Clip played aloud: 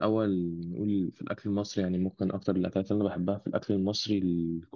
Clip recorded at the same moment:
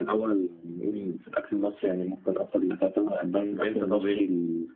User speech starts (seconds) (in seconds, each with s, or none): 3.4 s